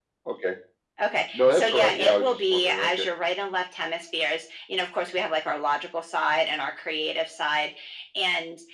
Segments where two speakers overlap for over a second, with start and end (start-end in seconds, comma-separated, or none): 1.3-3.1